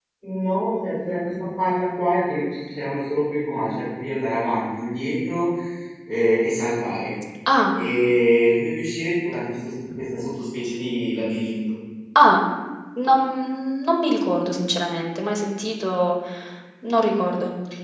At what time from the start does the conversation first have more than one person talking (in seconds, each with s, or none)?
none